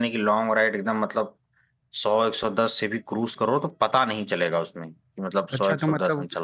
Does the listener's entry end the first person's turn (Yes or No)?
Yes